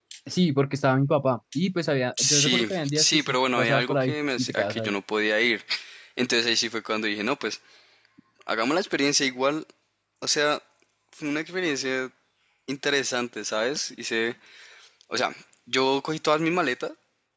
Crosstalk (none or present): present